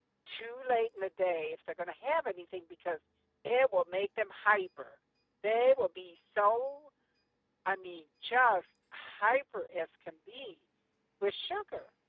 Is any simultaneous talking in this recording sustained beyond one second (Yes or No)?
No